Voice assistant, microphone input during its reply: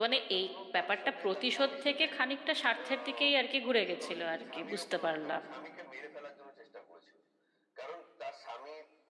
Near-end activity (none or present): present